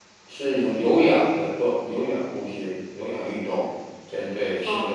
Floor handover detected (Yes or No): Yes